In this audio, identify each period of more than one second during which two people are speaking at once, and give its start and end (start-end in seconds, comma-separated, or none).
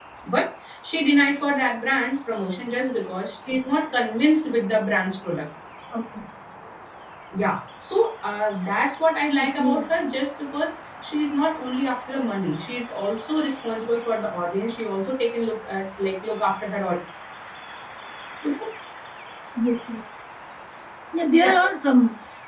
none